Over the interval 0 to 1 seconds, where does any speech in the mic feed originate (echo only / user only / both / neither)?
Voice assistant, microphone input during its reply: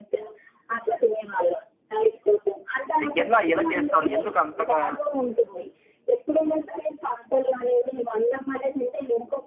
echo only